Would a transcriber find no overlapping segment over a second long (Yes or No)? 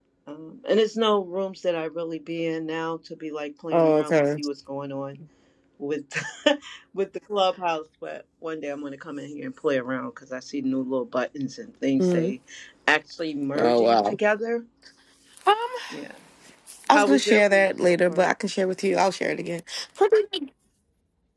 No